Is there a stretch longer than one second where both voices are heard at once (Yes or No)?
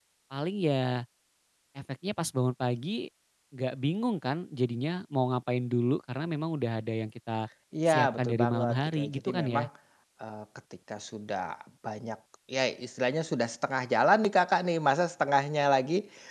Yes